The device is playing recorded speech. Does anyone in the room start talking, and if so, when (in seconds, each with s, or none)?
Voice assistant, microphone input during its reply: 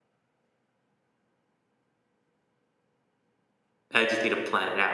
3.9 s